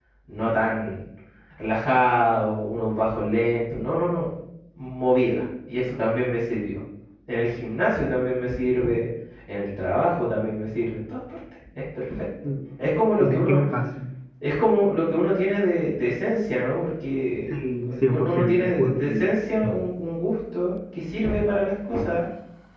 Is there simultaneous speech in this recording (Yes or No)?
Yes